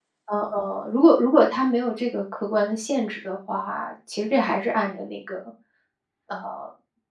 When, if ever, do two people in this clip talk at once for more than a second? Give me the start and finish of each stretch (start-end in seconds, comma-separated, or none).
none